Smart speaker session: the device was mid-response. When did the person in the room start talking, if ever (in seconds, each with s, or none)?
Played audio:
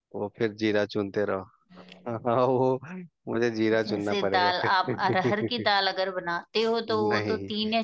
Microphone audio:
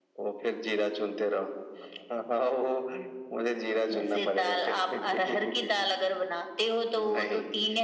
none